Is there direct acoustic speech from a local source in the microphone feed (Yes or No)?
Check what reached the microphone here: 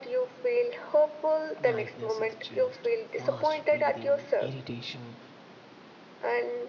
Yes